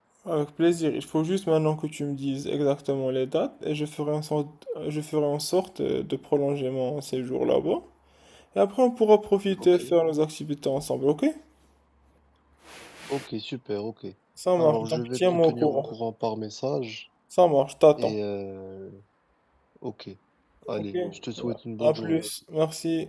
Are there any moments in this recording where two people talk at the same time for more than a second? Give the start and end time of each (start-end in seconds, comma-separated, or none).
14.6-15.9